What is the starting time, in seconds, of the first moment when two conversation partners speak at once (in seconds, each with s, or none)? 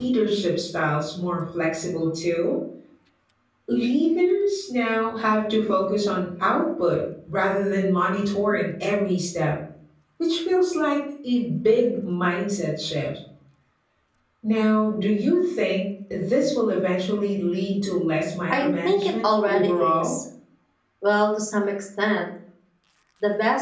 18.5 s